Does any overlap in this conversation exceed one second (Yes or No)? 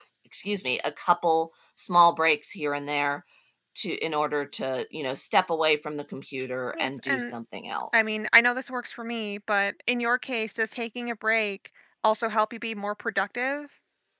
No